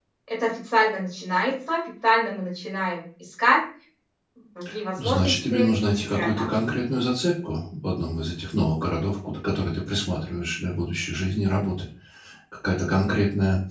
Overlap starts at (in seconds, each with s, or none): 5.0 s